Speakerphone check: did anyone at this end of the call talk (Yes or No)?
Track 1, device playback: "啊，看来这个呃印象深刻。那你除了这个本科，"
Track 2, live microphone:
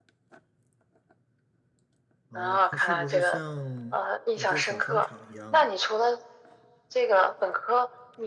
Yes